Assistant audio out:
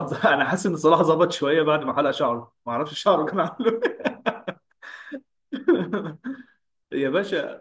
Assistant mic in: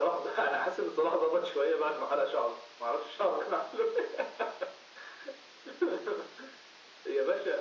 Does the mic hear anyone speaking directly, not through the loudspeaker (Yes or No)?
No